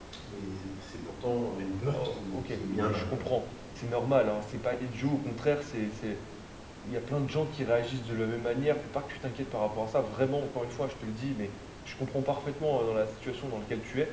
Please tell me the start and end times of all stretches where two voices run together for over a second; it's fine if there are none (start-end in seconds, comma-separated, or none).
1.9-3.2